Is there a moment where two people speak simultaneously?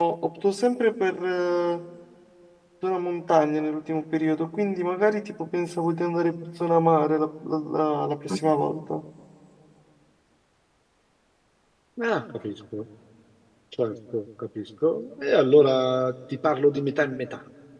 No

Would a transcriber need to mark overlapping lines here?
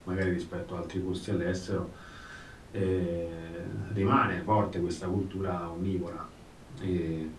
No

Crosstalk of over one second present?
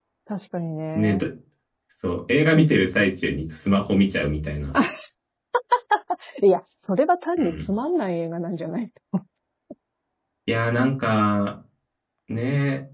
No

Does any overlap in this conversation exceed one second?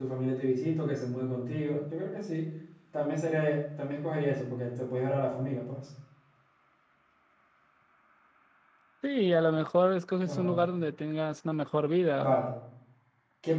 No

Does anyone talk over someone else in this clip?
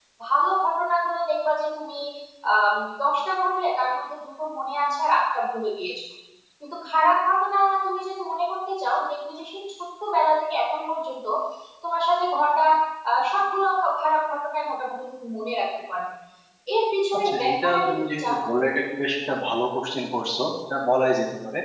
Yes, from 17.1 s

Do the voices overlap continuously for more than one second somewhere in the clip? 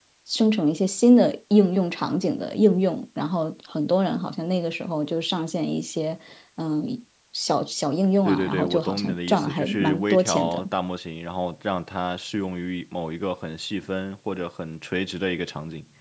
Yes, from 8.2 s

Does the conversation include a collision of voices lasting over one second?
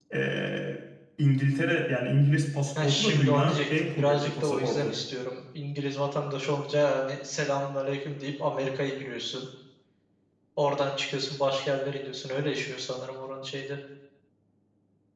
Yes, from 2.8 s

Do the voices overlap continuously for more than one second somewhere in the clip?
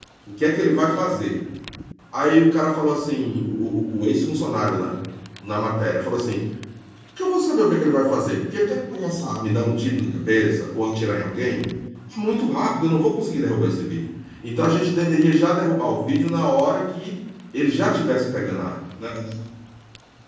No

